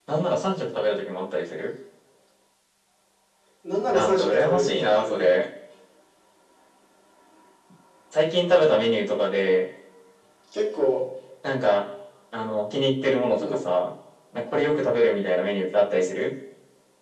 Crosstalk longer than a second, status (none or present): present